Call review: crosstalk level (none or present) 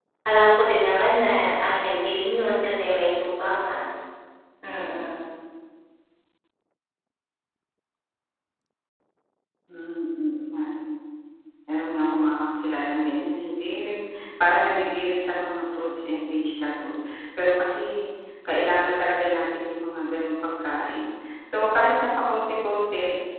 none